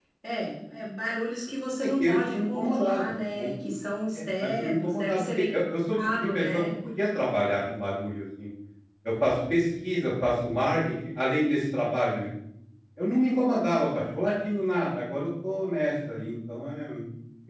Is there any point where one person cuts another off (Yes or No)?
Yes